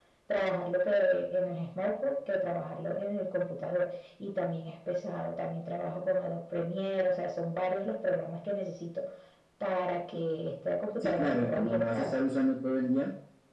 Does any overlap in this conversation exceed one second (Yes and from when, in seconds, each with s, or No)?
Yes, from 11.0 s